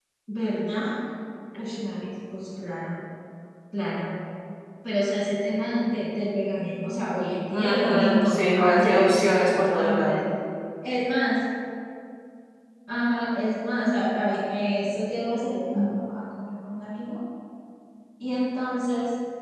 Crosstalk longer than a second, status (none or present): present